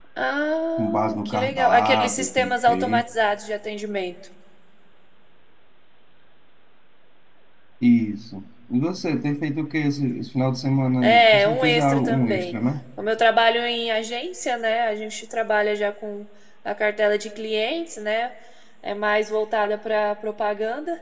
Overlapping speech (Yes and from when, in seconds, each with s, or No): Yes, from 0.8 s